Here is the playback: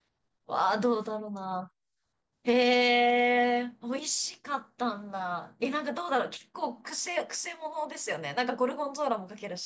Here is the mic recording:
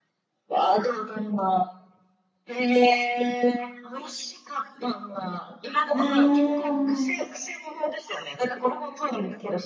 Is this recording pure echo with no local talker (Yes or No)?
No